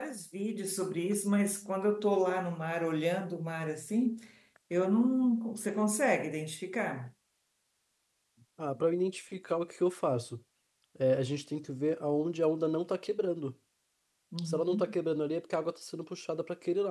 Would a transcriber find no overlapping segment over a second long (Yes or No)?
Yes